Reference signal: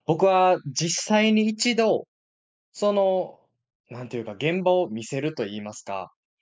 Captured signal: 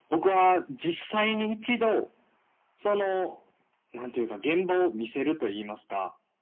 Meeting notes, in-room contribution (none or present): none